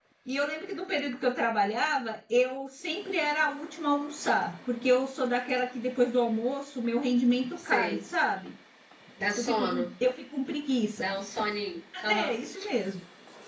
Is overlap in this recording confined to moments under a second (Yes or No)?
Yes